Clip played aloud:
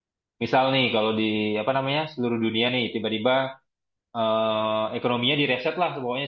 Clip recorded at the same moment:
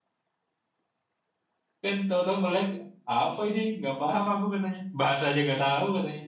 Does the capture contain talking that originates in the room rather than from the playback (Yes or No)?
Yes